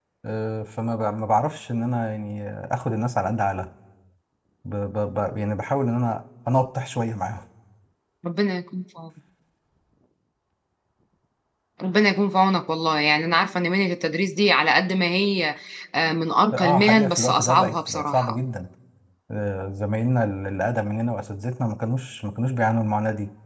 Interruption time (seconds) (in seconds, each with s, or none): 16.5 s